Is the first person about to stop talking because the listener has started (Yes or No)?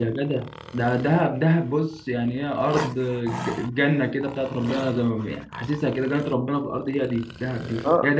Yes